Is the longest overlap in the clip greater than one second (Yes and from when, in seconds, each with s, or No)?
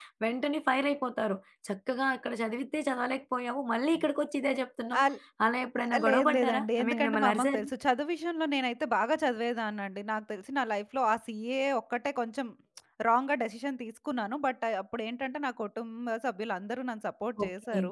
Yes, from 6.1 s